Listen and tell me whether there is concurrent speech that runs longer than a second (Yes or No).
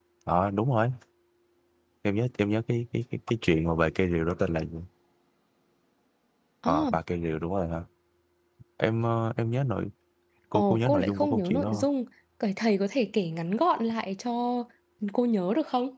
Yes